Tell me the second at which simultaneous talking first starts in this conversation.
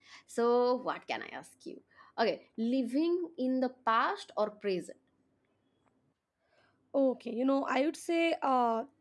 none

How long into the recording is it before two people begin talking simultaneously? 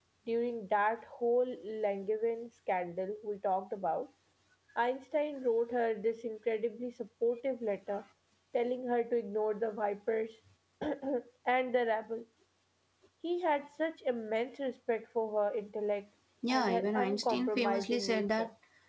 16.4 s

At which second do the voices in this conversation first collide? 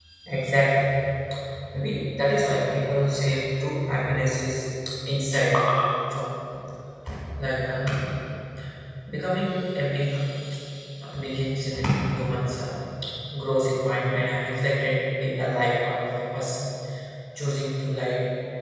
none

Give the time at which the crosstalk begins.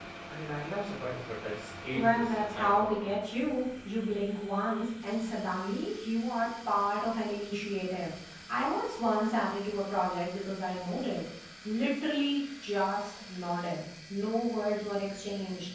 1.9 s

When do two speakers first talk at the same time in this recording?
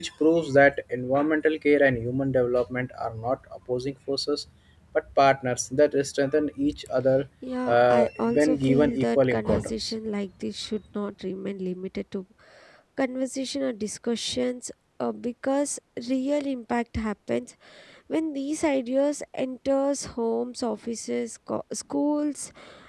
7.7 s

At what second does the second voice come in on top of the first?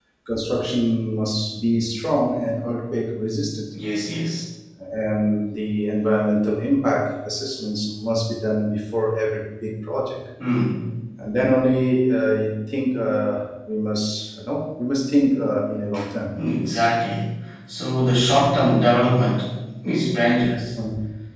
none

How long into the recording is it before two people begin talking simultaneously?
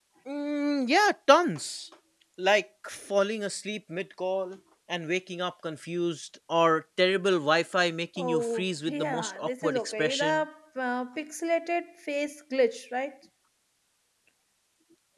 8.2 s

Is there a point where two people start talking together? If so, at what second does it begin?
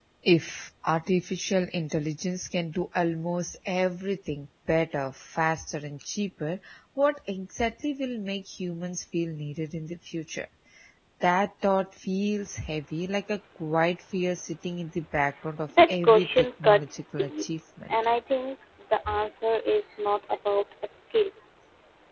15.7 s

